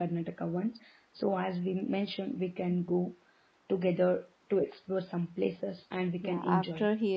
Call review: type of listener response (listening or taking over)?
taking over